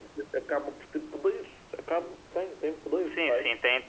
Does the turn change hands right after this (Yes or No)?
Yes